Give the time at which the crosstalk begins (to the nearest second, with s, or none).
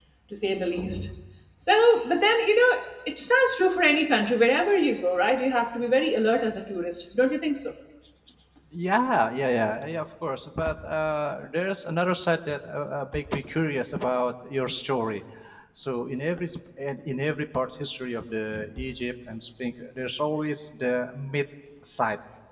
none